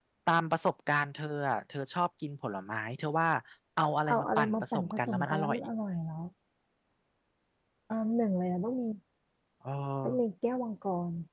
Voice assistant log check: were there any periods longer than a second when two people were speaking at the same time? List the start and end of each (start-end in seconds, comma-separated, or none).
4.1-5.6